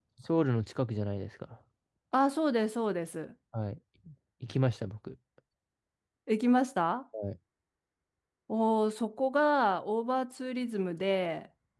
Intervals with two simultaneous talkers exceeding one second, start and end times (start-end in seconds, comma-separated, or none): none